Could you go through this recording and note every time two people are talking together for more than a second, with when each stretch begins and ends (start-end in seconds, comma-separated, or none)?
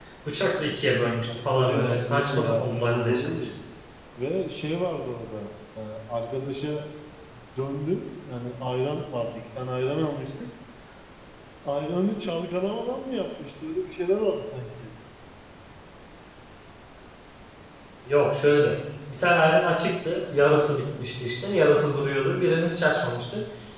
1.5-3.5